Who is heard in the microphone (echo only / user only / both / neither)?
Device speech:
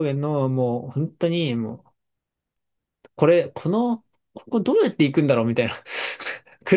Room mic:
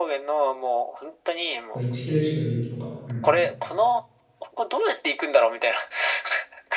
both